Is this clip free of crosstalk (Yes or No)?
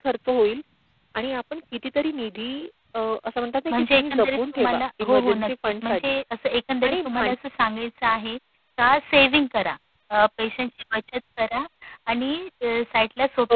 No